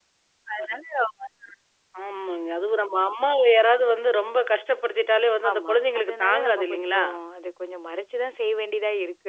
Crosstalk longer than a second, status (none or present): present